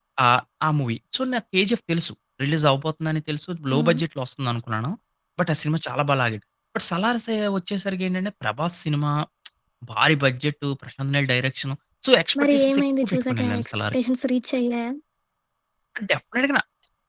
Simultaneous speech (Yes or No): Yes